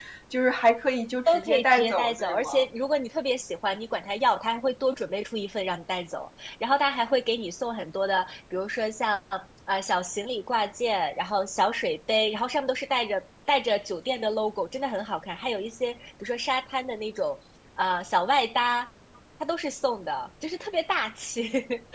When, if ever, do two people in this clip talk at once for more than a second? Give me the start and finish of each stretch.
1.3-2.5

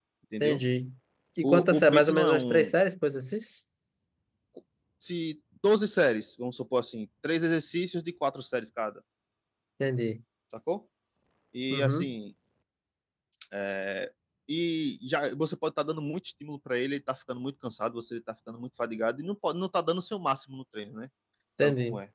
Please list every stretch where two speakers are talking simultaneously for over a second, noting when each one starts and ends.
1.4-2.7

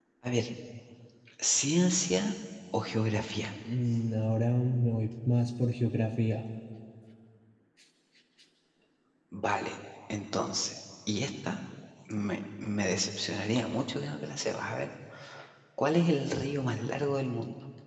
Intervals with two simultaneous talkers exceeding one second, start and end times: none

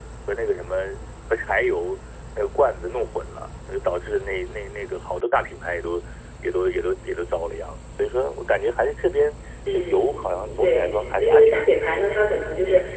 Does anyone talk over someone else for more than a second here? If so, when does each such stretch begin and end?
10.6-12.2

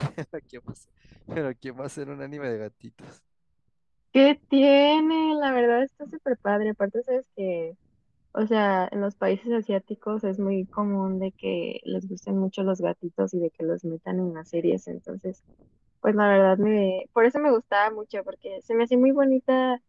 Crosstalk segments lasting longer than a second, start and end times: none

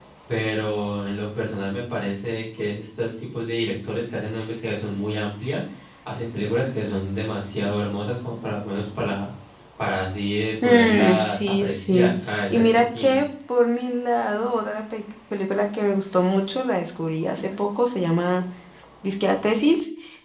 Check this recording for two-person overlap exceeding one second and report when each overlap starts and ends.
10.6-13.3

